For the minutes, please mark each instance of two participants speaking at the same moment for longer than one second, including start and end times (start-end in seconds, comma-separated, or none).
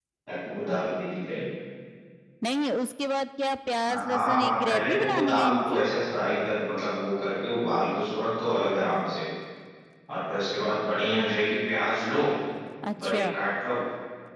3.9-5.8